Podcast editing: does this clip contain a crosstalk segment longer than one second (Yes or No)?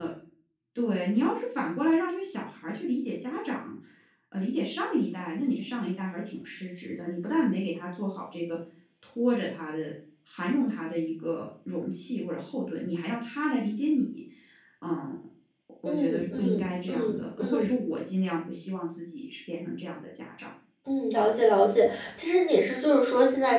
Yes